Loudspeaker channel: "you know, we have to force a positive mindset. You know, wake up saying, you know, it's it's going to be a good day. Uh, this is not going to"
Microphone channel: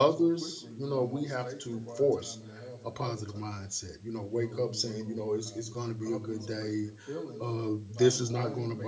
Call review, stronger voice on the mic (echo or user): echo